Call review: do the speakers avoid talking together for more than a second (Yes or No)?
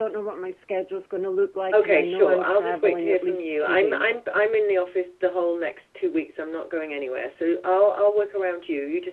No